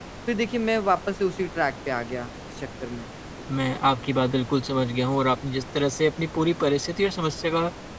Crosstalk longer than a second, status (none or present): none